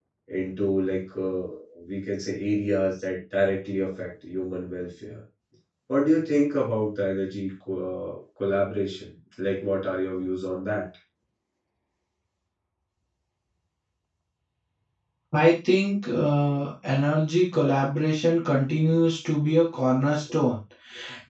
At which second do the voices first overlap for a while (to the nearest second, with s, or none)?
none